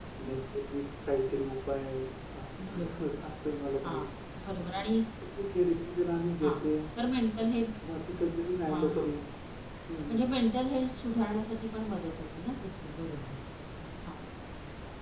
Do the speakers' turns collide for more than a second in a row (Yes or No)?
No